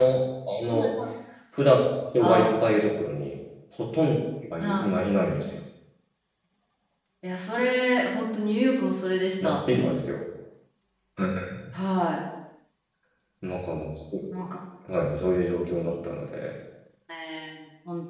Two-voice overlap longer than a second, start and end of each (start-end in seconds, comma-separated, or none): none